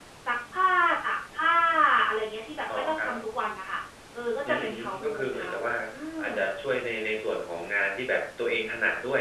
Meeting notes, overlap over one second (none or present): present